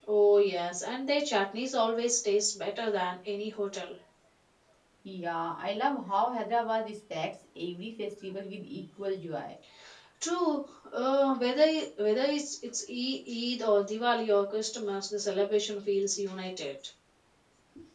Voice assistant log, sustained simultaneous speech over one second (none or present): none